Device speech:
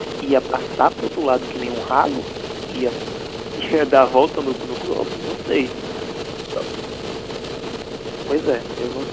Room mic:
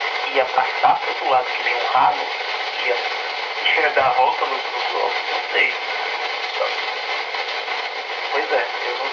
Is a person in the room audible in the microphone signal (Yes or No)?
No